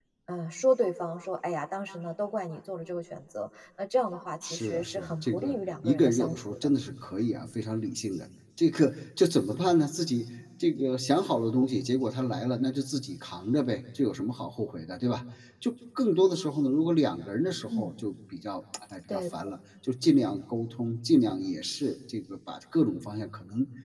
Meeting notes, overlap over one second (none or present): present